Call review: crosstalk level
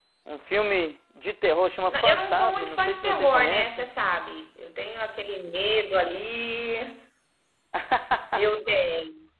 present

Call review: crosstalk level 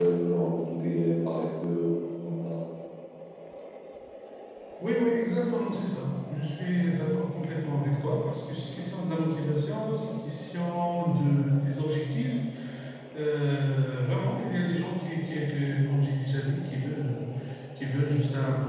none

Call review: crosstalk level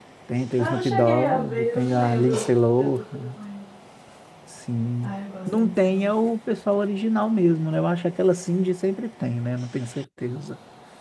present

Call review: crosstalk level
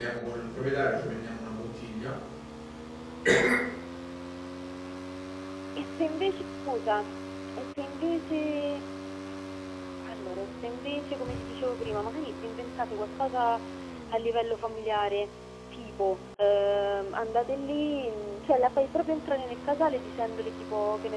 none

